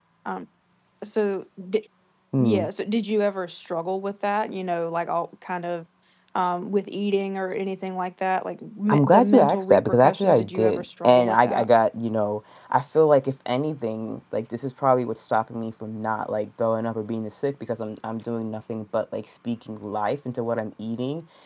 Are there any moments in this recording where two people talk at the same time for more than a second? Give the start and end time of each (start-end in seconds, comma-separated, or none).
8.9-11.7